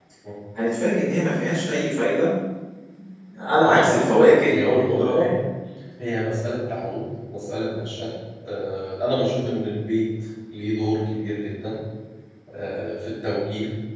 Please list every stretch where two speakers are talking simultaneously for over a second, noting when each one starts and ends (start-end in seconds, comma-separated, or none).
3.6-5.3